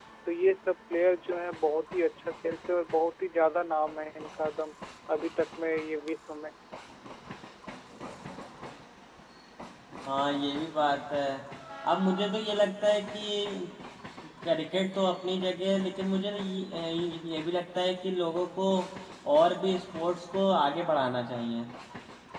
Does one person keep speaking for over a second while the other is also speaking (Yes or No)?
No